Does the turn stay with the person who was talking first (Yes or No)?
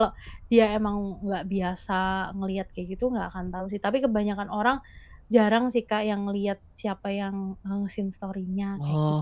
No